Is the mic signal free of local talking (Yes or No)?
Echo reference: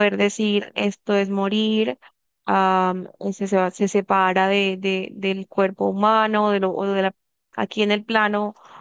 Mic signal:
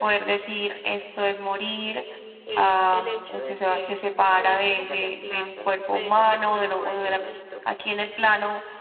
No